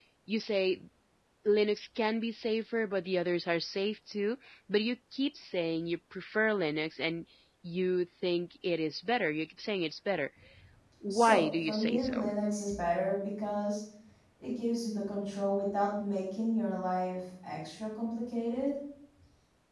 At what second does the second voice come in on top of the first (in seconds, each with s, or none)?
11.1 s